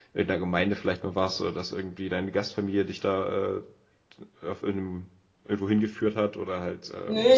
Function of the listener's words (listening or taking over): taking over